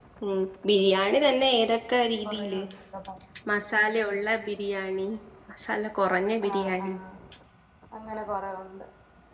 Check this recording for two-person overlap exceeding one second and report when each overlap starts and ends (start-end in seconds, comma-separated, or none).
none